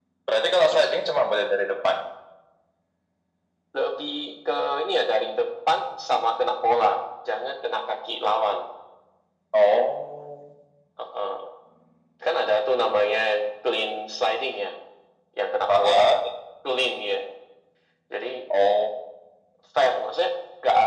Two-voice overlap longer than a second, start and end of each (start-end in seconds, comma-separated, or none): none